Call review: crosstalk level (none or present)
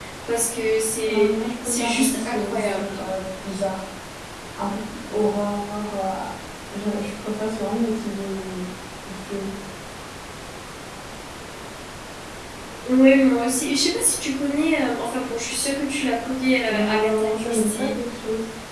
present